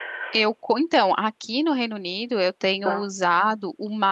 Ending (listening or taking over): listening